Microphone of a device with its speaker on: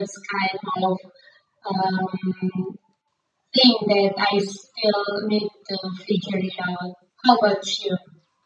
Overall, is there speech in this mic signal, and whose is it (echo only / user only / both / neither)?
echo only